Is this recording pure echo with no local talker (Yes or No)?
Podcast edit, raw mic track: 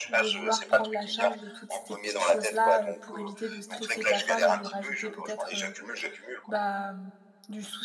No